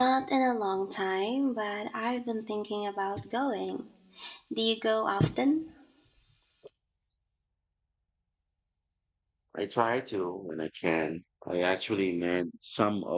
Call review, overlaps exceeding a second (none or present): none